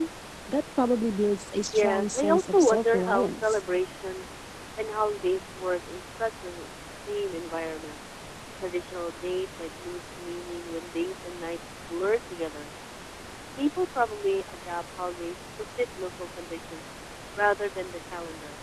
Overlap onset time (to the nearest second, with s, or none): 2 s